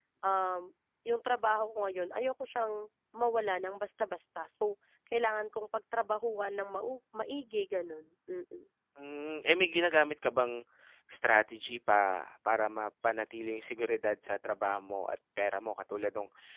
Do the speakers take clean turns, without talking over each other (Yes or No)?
Yes